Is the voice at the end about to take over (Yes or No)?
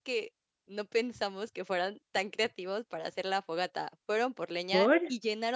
No